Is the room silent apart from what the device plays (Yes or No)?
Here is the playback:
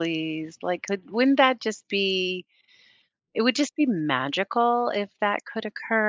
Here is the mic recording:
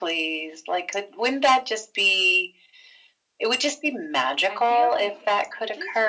No